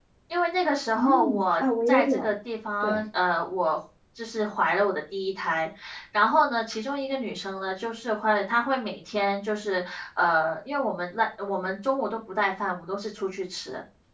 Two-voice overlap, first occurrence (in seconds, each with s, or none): 0.9 s